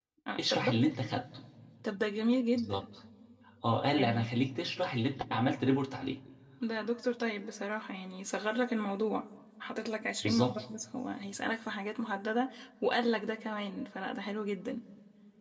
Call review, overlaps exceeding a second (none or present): none